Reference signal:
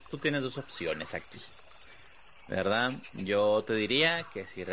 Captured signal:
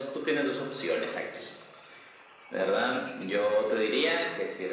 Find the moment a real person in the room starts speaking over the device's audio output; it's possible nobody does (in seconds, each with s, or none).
none